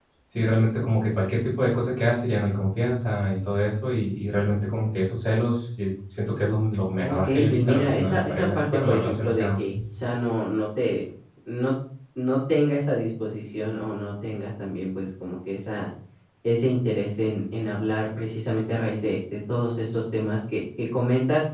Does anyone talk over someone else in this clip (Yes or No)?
Yes